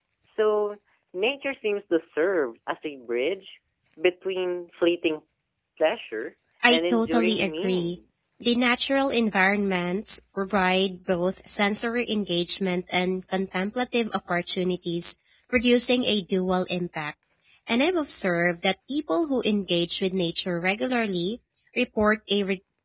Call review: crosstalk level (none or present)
present